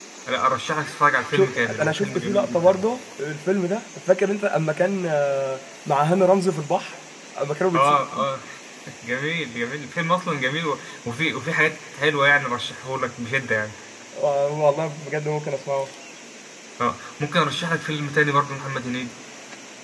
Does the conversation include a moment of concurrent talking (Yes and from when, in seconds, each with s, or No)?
Yes, from 1.3 s